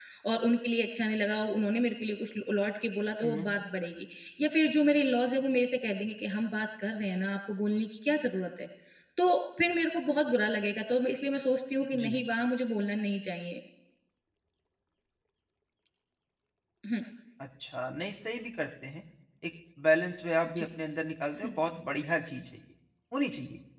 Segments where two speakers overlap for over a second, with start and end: none

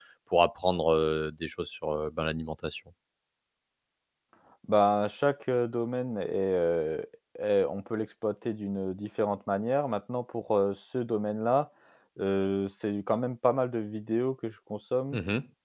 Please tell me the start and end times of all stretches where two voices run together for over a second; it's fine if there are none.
none

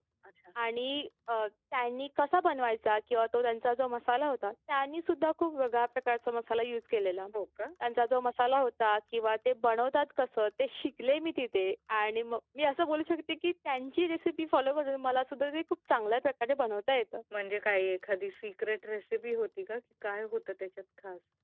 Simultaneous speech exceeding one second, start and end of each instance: none

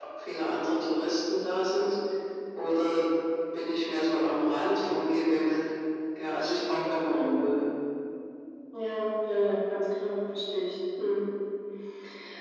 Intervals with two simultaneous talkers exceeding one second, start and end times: none

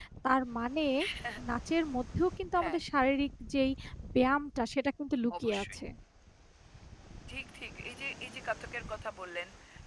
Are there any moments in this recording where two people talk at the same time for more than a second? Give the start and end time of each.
none

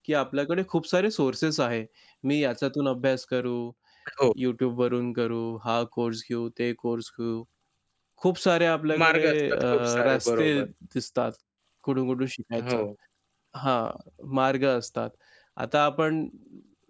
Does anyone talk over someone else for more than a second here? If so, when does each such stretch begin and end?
9.0-10.5

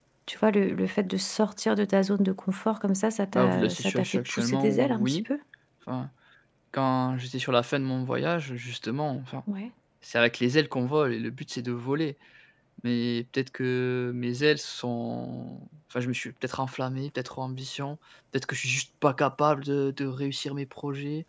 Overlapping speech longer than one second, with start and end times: 3.3-5.2

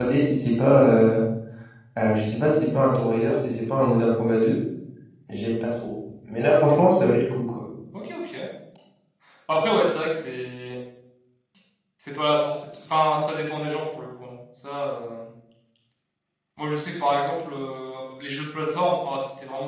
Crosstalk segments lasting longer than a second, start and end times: none

